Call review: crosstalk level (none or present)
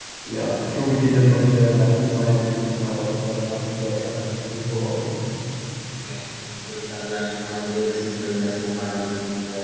none